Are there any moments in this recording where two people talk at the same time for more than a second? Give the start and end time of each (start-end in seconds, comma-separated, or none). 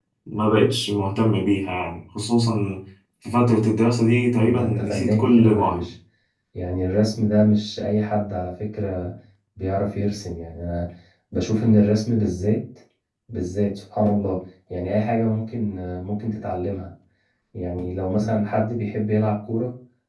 4.4-5.9